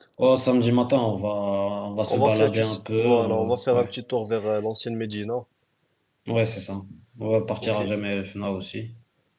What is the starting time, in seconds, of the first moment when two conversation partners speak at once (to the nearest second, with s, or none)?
2 s